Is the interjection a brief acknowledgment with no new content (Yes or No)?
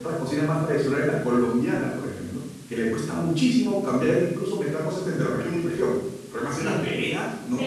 No